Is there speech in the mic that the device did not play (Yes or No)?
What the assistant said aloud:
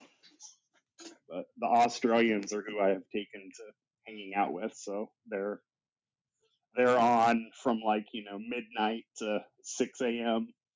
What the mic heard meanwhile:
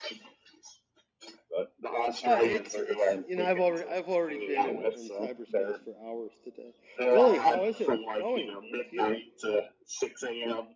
Yes